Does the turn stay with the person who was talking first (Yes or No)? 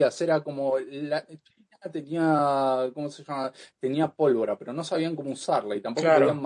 Yes